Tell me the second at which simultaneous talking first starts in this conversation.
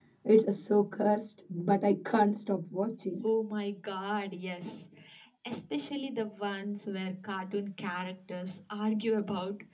none

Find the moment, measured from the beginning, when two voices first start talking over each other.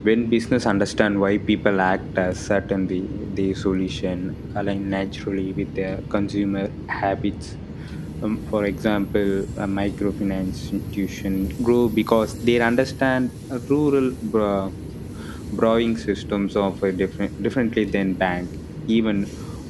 none

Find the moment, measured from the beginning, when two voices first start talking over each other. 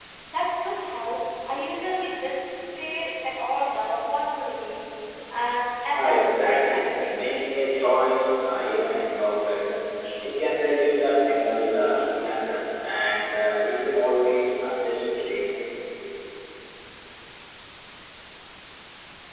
6 s

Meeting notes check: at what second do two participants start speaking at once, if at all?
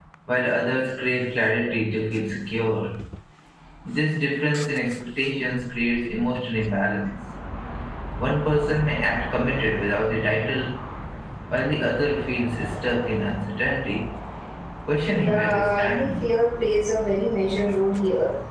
15 s

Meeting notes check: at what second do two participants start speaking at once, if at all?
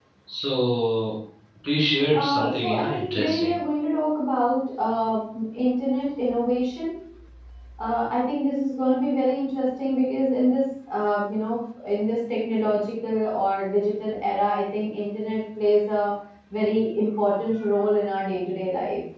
2 s

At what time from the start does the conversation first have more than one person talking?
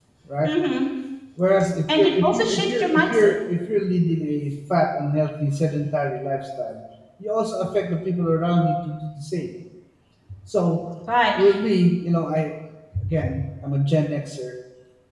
2 s

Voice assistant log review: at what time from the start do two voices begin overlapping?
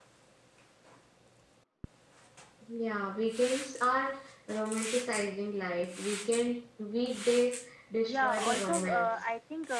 8 s

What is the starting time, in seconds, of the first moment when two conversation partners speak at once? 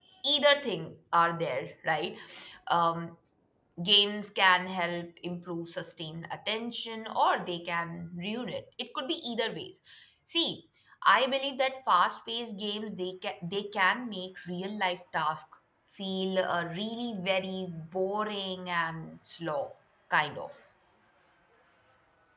none

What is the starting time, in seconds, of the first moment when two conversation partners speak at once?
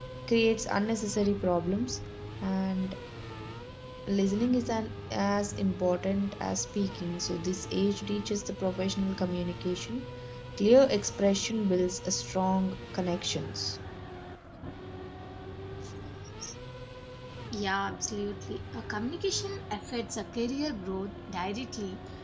none

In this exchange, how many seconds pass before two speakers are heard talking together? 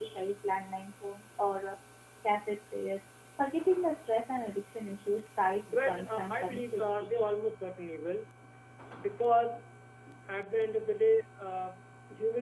6 s

